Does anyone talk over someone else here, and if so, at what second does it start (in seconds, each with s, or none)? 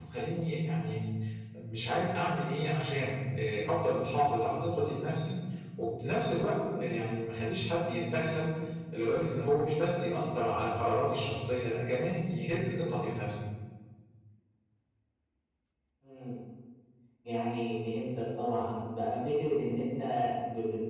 none